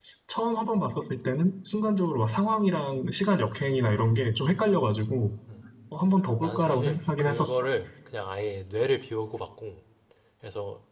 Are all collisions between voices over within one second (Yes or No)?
No